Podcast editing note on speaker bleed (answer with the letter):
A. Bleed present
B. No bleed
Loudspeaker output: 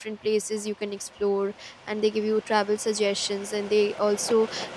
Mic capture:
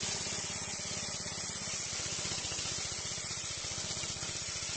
B